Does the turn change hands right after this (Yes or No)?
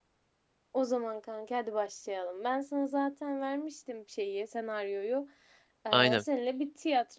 No